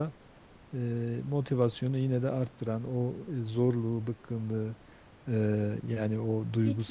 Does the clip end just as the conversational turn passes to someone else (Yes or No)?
No